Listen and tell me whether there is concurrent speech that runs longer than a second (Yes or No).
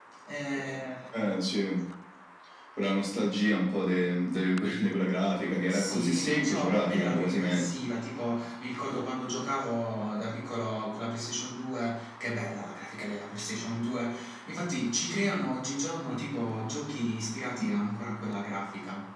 Yes